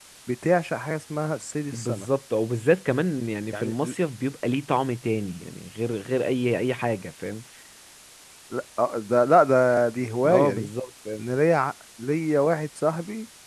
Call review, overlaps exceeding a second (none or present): none